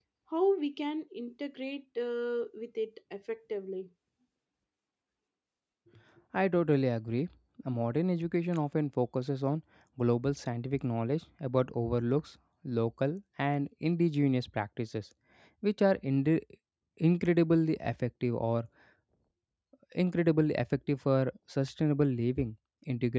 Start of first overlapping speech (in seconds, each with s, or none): none